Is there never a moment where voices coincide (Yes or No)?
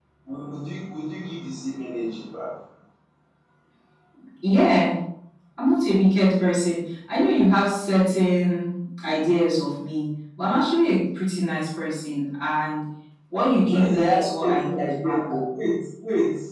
No